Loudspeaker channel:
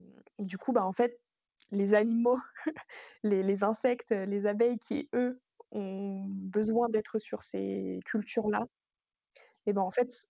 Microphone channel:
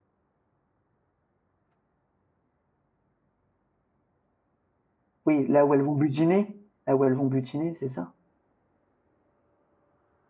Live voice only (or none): Oui, là où elles vont butiner? Là où elles vont butiner, c'est ça?